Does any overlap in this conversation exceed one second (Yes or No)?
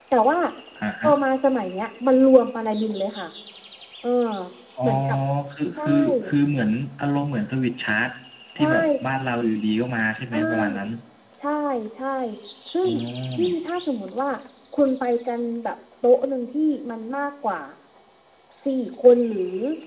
No